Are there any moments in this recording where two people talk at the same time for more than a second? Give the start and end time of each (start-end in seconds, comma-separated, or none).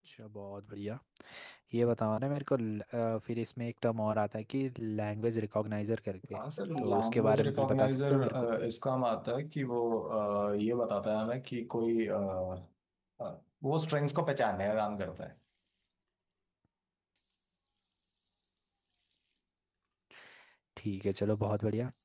6.8-8.5